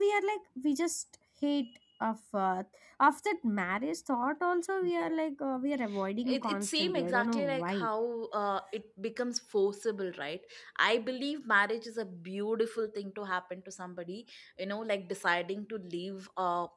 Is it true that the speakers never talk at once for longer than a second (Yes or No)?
No